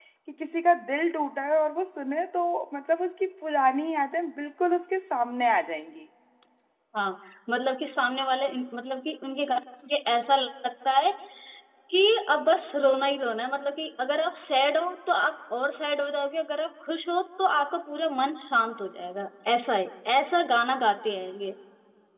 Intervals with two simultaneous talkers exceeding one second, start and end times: none

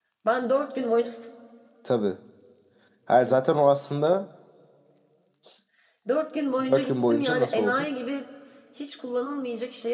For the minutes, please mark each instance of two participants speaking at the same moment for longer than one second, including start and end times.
6.7-7.9

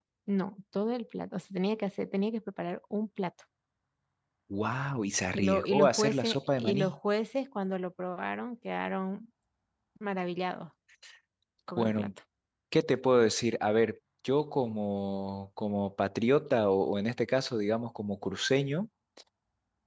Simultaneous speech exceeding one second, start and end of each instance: 5.3-7.0

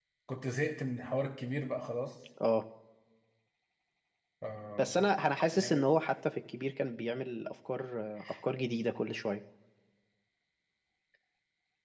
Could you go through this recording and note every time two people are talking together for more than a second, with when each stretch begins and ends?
none

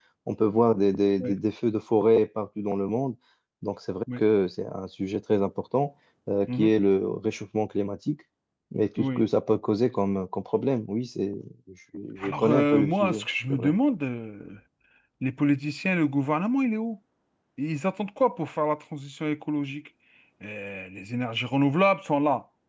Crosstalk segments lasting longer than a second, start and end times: 12.2-13.7

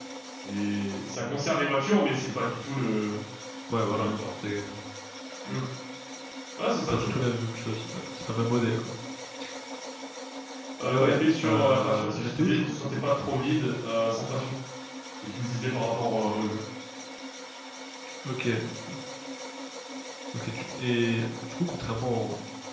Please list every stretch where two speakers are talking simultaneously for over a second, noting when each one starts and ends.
10.9-12.8

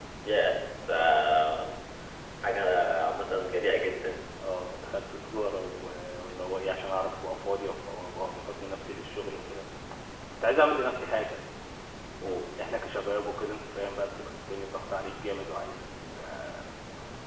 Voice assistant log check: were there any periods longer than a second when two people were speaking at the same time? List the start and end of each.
none

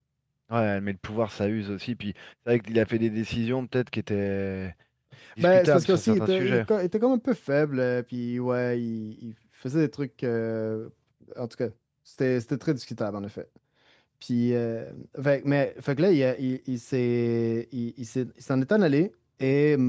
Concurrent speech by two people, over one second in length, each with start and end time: 5.4-6.6

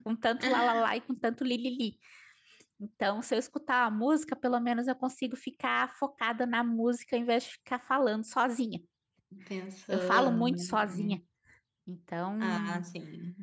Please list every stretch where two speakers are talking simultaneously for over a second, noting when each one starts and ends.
9.9-11.2

